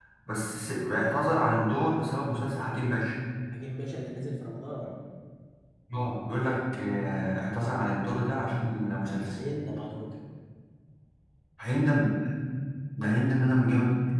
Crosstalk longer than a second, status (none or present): none